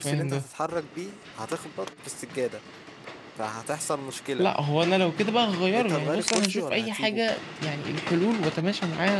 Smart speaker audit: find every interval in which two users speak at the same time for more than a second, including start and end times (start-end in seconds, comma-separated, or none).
5.8-7.2